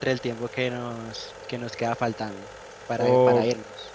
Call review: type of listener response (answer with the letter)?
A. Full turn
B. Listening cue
A